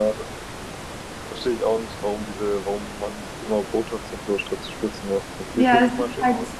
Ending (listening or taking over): taking over